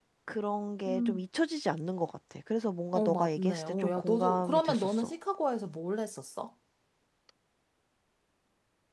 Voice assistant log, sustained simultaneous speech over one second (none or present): present